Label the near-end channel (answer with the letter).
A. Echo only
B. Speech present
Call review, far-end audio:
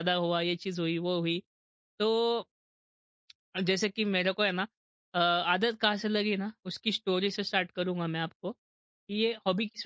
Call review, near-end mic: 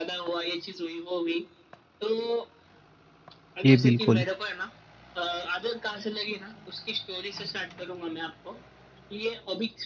B